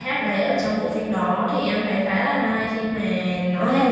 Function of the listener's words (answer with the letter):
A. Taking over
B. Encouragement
A